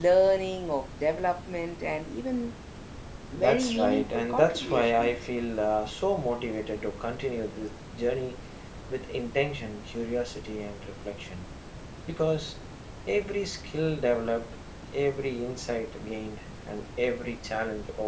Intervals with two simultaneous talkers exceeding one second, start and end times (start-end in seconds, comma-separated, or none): 3.3-5.3